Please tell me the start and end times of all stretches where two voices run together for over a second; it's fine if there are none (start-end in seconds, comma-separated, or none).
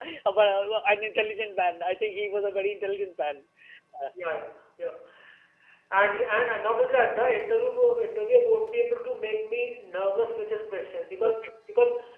none